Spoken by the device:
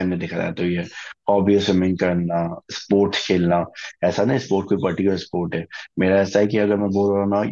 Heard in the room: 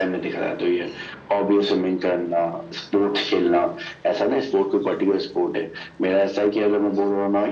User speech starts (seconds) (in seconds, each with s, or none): none